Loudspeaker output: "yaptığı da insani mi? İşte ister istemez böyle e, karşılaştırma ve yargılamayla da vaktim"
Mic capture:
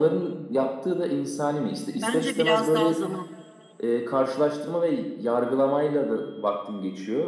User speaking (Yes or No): Yes